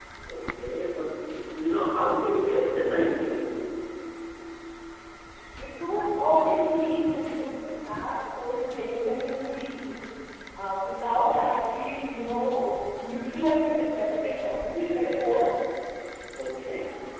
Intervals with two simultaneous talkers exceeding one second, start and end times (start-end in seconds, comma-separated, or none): none